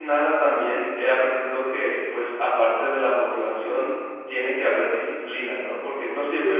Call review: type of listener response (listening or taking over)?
taking over